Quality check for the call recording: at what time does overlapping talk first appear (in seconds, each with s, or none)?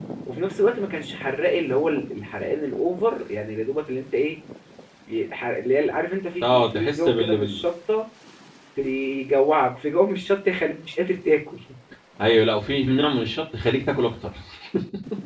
6.4 s